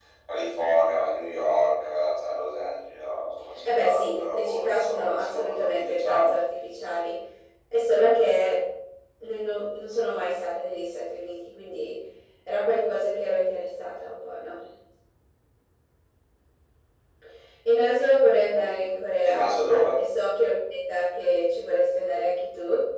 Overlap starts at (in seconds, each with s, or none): 3.6 s